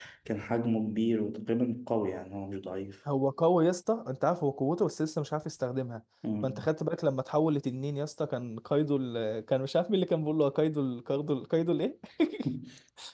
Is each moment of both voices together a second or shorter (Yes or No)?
Yes